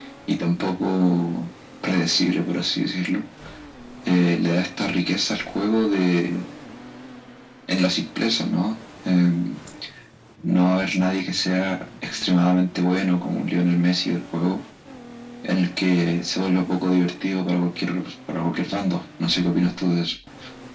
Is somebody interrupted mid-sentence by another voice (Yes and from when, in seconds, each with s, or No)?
No